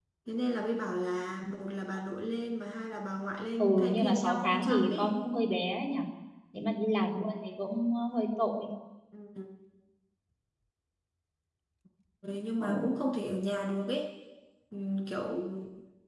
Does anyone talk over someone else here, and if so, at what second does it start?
3.6 s

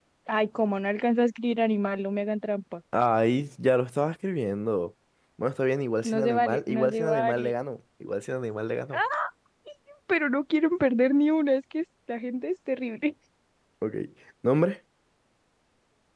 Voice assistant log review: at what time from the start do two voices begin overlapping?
6.0 s

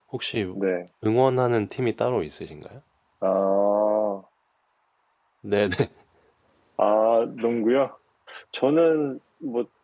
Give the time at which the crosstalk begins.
none

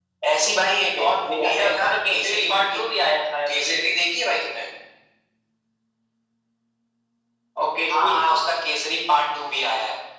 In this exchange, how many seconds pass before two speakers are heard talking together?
1.0 s

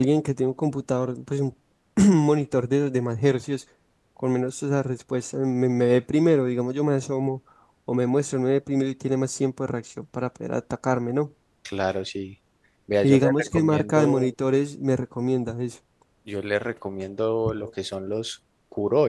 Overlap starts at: 13.0 s

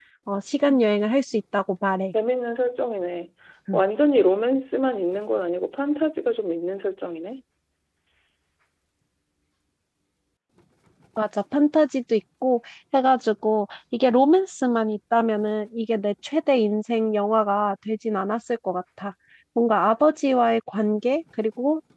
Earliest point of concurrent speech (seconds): none

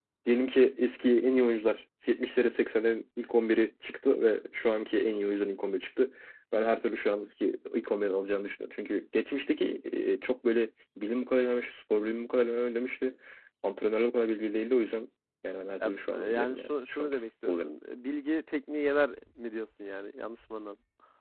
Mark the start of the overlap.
15.8 s

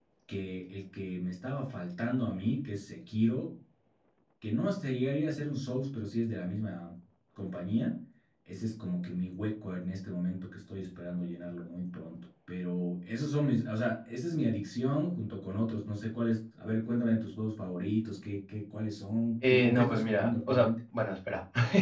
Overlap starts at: 19.4 s

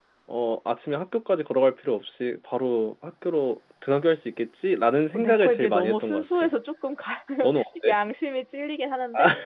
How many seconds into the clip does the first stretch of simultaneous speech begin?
5.1 s

